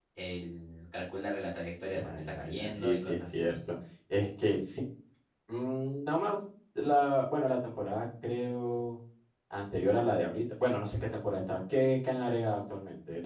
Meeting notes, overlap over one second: present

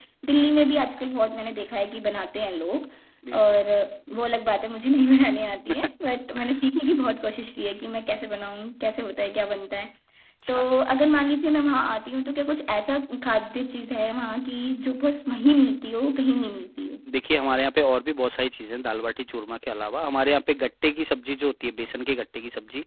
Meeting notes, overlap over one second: none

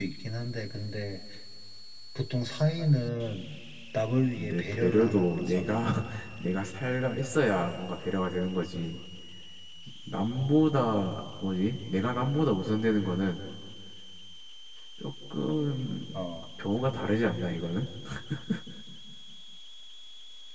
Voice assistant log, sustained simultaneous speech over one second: present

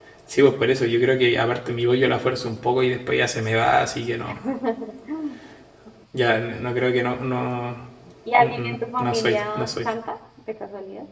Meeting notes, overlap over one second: present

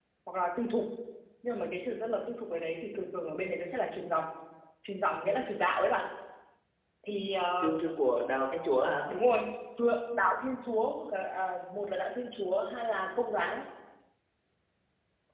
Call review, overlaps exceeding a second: none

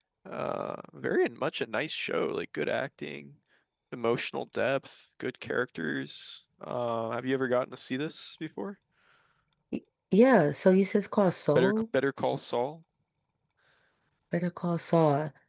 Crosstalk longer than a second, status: none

